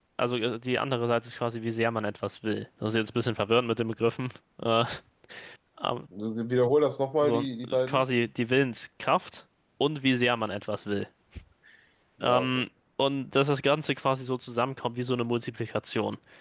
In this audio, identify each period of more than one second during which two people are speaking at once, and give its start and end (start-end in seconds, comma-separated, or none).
none